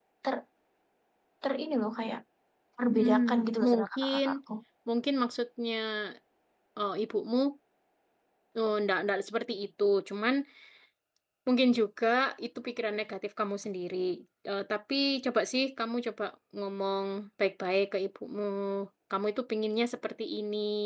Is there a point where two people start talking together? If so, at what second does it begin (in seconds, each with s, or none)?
2.9 s